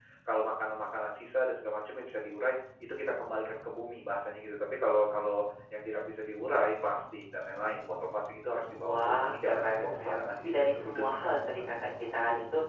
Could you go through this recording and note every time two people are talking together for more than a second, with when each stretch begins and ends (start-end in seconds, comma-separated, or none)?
8.7-11.6